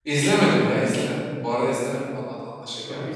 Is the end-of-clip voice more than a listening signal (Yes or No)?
Yes